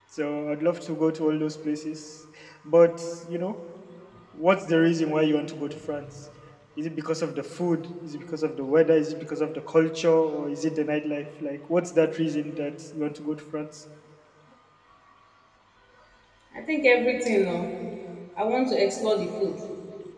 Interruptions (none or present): none